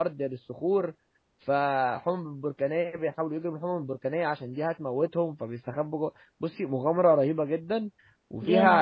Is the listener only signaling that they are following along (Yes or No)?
Yes